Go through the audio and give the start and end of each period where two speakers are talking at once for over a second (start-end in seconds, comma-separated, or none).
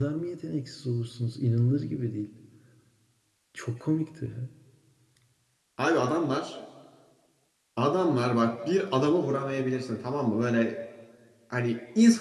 none